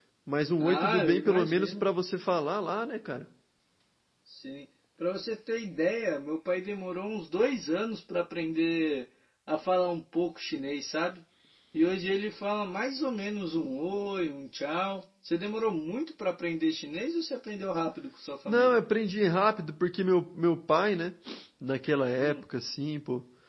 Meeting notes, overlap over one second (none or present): present